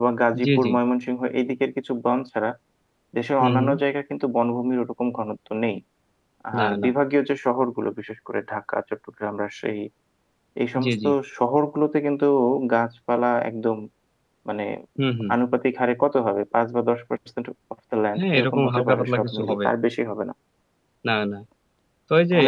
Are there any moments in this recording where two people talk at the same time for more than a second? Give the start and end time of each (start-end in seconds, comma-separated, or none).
18.2-19.6